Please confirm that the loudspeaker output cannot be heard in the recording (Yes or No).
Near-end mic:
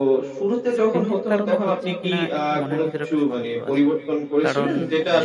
No